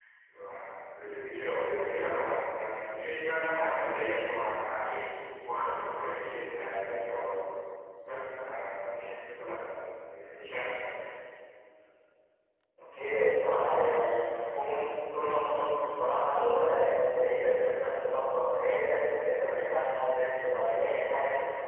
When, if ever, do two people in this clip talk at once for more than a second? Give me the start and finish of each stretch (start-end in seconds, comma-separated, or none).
none